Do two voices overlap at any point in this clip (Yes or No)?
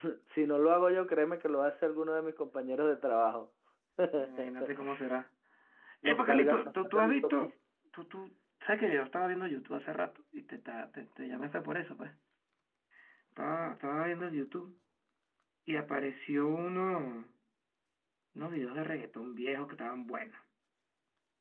Yes